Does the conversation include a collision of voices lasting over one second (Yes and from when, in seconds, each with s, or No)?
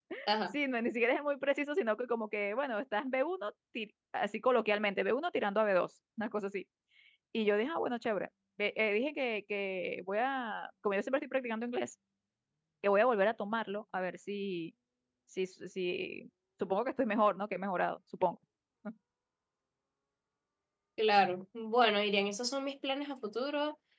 No